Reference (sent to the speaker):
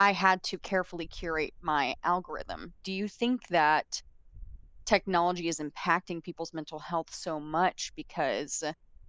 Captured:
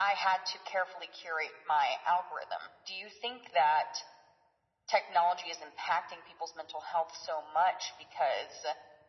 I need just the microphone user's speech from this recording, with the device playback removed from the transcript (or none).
none